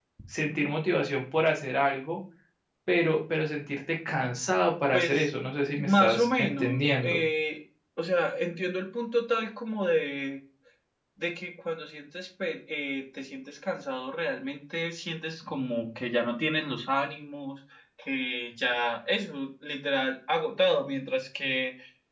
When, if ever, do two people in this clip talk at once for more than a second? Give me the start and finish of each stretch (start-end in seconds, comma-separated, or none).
5.8-7.2